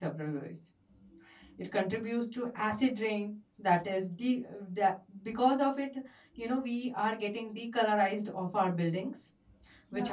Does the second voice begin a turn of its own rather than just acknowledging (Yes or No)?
No